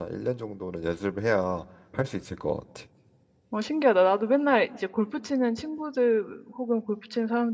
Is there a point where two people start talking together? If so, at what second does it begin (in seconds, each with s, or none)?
none